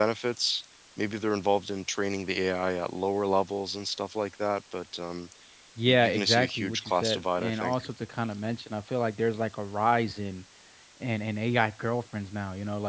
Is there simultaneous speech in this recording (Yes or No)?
Yes